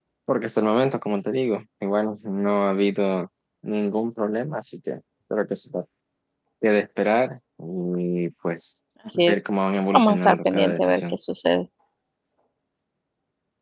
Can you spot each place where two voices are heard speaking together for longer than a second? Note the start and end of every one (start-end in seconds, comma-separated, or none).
9.9-11.1